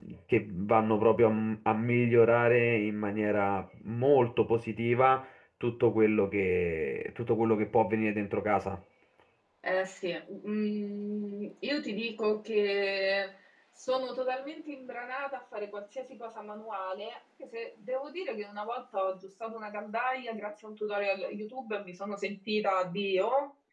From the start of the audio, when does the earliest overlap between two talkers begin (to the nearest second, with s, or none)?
none